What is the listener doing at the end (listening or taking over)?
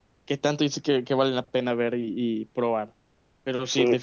listening